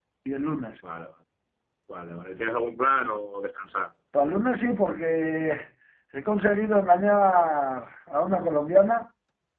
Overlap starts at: none

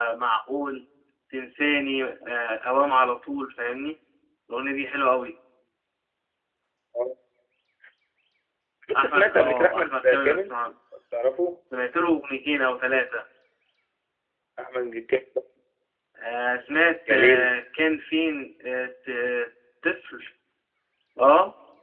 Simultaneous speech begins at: 9.0 s

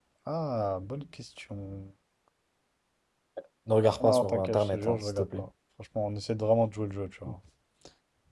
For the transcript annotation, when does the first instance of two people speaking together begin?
4.0 s

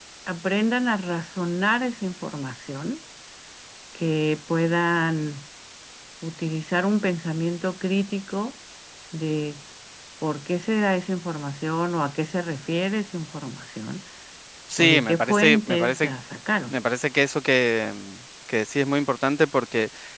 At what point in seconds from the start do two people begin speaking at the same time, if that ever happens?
14.8 s

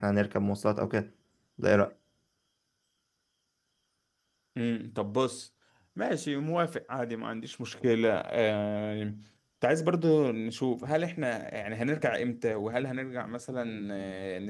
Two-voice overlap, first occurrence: none

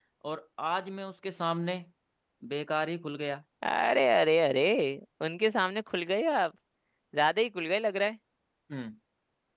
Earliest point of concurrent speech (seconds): none

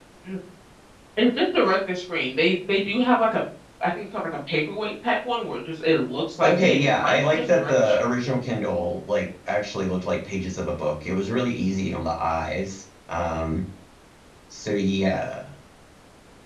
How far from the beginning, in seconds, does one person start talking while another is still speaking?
6.4 s

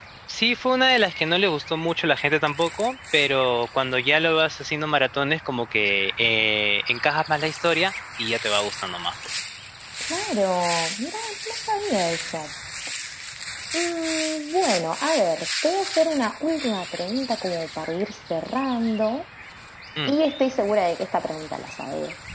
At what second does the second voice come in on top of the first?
none

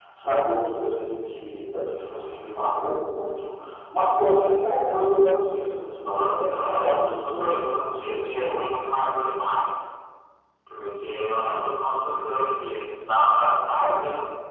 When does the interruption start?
6.0 s

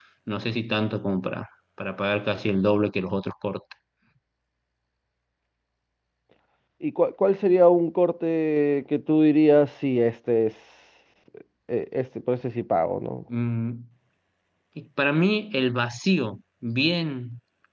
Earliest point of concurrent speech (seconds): none

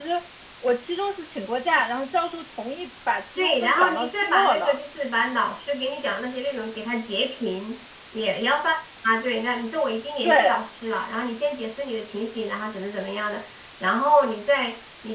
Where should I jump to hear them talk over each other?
3.4 s

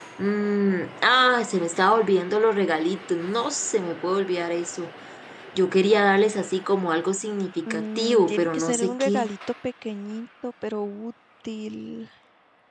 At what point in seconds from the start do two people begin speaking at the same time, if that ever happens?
7.7 s

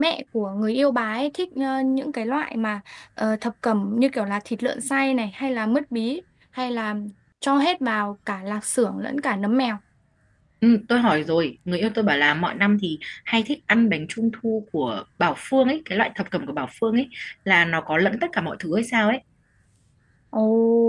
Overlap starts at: none

